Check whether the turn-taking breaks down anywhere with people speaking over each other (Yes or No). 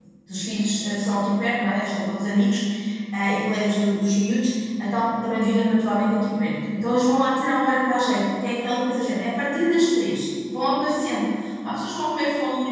No